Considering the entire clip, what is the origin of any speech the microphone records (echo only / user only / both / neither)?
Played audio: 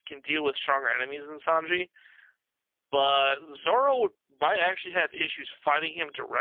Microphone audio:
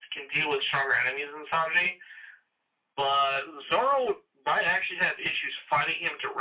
echo only